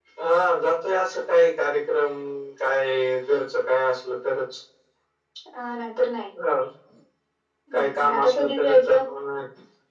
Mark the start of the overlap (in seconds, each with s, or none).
7.7 s